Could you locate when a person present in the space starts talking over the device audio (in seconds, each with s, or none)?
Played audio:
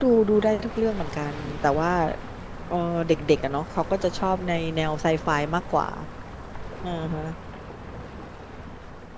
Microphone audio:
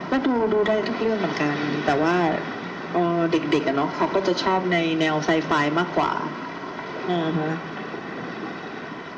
none